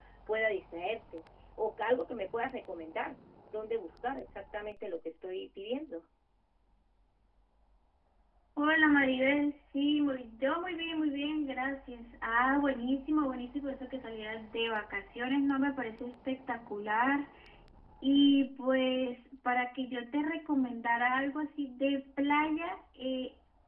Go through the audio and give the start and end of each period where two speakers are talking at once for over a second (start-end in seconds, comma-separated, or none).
none